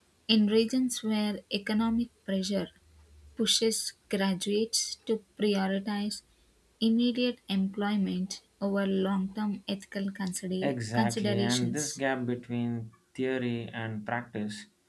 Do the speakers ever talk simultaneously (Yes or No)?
Yes